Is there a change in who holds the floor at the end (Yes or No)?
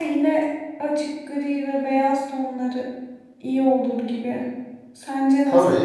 Yes